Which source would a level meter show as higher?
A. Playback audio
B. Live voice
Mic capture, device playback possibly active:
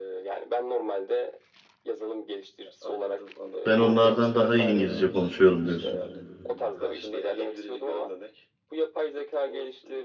B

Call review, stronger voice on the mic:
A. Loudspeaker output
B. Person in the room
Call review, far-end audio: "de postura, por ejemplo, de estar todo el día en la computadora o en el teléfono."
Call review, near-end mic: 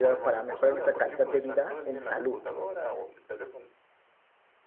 B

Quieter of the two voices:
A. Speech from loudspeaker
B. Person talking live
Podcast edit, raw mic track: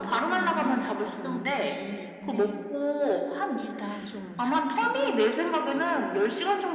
B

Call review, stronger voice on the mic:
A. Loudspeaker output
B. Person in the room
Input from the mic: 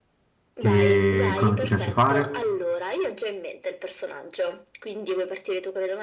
B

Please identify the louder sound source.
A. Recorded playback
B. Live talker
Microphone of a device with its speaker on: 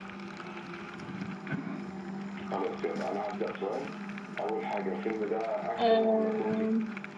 B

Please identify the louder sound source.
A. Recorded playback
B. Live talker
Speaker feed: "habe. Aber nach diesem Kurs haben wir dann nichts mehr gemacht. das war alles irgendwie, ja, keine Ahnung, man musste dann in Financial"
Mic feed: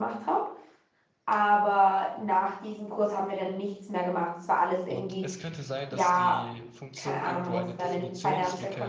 A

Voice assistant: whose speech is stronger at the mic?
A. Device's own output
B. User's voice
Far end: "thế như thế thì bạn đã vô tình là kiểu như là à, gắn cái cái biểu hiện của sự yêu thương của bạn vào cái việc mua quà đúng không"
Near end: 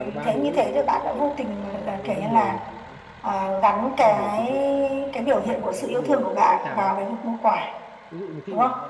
A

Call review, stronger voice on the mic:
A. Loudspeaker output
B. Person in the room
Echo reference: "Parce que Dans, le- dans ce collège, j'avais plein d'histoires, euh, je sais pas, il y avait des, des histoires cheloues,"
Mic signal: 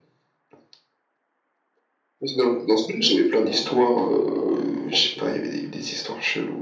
A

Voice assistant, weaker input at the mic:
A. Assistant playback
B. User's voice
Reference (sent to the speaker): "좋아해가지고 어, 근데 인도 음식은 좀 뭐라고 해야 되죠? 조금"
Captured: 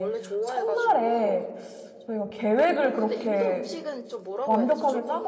A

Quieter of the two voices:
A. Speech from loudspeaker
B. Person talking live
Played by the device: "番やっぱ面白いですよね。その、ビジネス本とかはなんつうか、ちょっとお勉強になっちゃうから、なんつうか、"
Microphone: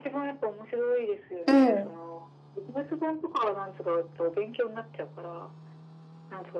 A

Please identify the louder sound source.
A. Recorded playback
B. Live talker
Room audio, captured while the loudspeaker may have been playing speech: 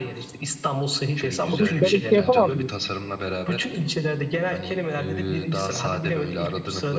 B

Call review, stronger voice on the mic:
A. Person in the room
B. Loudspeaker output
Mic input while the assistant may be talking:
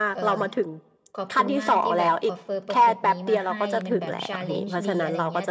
B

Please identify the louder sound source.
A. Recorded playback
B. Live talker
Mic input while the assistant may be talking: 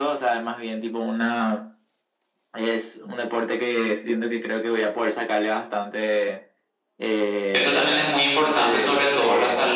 B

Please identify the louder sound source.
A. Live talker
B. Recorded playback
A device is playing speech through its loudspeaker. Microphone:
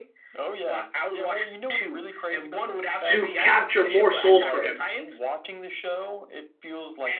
A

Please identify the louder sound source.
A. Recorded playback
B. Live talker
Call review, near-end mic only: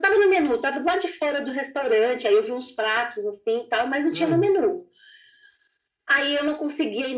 A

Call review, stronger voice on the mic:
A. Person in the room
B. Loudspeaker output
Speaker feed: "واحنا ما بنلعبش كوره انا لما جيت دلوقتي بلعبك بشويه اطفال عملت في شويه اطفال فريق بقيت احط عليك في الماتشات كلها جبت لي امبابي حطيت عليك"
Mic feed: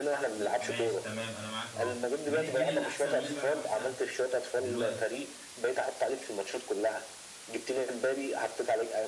B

